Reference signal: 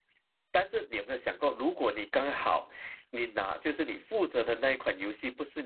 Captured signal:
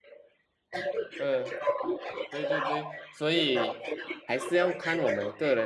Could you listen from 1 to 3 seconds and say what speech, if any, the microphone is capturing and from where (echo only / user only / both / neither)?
both